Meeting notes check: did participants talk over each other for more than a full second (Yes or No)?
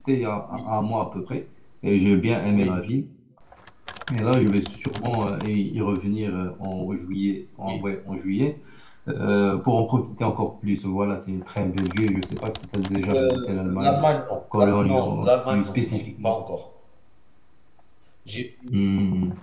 Yes